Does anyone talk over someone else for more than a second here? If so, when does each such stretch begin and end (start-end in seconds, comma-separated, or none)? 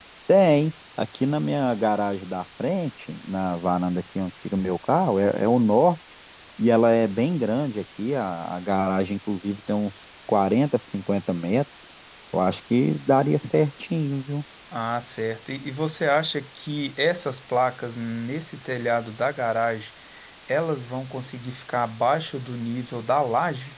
none